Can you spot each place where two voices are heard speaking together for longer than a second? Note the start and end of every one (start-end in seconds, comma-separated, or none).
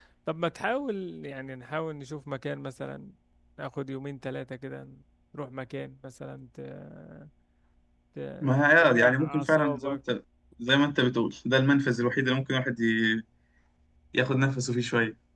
8.4-10.0